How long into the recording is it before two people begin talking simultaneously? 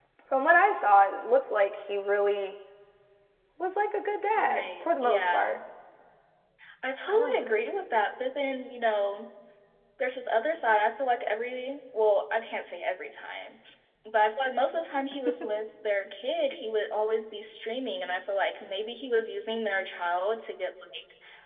4 s

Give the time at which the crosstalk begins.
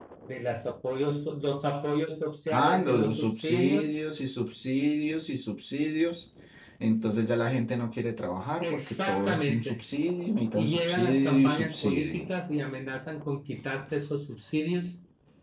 2 s

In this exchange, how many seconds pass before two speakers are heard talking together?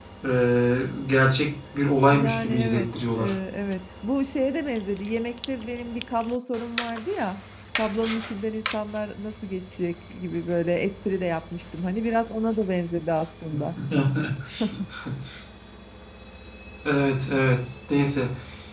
2 s

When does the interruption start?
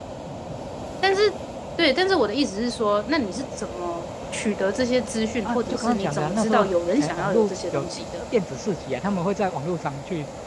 5 s

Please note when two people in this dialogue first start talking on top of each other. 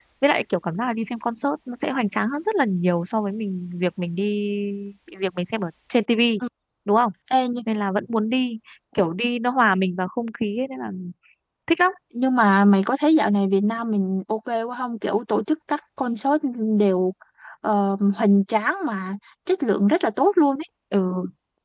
none

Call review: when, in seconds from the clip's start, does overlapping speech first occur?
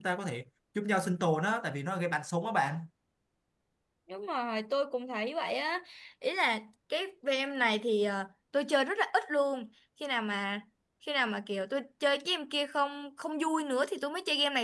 none

